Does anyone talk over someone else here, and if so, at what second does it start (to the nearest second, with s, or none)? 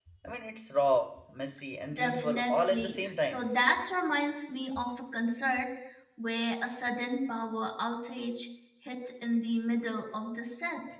2 s